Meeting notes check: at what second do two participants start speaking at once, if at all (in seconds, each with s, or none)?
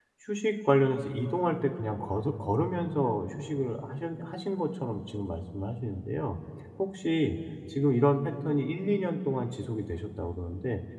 none